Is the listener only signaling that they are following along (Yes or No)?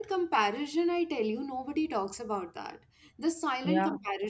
Yes